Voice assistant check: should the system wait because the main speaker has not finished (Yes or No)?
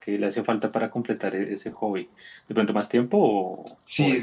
No